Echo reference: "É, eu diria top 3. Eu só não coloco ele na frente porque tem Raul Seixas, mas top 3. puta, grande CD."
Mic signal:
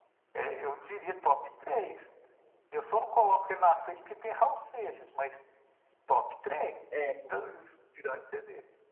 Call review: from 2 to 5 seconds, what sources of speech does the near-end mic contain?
echo only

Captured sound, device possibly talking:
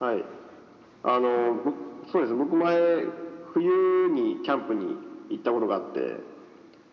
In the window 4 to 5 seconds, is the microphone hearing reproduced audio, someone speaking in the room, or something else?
echo only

